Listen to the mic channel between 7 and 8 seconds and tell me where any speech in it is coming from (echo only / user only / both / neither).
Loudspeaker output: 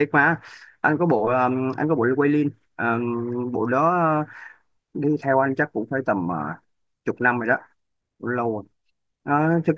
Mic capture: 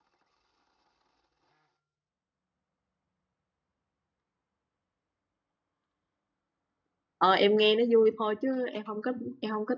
user only